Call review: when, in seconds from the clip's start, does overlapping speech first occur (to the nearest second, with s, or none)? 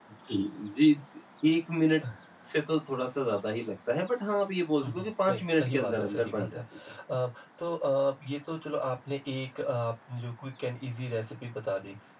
5 s